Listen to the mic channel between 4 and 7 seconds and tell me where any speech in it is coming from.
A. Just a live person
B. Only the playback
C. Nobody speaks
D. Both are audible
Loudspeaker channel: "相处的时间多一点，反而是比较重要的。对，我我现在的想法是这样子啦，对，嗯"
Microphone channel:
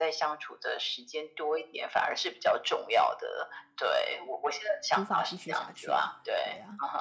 D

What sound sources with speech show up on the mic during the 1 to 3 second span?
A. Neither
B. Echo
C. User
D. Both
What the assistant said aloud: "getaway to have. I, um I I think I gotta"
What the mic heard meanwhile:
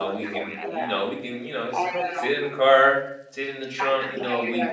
D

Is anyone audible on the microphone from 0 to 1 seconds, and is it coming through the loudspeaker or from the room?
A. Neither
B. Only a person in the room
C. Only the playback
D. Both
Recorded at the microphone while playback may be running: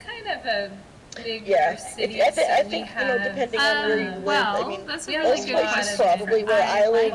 C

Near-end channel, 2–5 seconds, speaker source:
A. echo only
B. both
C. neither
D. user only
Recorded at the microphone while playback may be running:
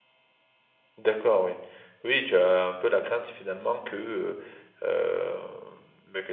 D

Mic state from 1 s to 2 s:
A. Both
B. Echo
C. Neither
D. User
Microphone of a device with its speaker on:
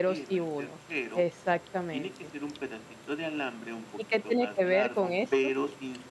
A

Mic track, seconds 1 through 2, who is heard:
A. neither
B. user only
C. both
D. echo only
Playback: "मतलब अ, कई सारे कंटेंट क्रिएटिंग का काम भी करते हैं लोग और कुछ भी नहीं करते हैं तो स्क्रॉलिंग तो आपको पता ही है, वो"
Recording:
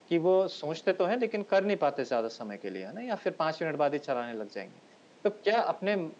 B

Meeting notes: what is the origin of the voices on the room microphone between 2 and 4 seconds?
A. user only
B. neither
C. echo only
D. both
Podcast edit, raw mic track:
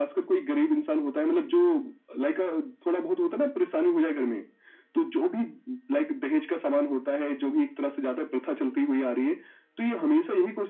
C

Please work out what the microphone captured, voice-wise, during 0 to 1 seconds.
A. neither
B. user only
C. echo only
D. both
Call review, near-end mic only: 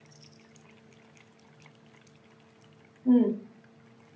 A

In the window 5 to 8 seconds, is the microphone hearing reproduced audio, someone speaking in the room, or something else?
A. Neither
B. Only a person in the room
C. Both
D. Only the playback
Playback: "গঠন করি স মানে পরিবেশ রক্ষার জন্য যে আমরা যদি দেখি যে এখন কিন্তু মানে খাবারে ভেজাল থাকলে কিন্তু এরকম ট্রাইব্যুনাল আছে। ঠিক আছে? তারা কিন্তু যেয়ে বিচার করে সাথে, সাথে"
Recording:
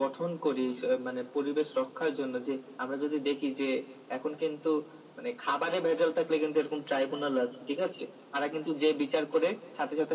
D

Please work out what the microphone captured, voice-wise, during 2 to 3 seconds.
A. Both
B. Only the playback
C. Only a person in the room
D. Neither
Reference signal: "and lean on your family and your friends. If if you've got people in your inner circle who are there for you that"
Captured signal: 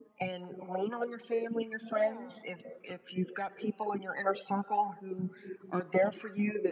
A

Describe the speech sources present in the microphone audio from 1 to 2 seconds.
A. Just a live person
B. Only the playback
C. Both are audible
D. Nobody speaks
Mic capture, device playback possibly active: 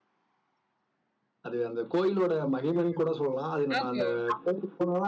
B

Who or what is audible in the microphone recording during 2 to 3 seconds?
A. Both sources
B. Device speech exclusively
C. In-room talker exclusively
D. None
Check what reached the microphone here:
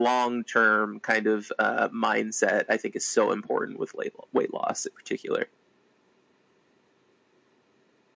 B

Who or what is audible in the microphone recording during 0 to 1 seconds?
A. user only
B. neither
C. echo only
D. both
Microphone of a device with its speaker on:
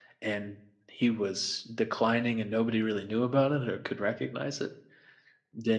A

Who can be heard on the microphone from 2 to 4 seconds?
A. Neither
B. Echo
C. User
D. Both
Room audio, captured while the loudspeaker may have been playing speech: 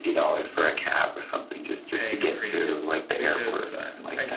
D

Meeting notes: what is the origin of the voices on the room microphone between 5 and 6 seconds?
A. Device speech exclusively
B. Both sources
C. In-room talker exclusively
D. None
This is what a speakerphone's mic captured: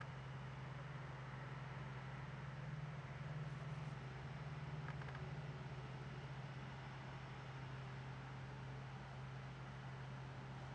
D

